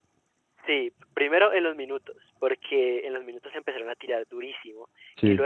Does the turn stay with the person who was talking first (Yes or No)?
Yes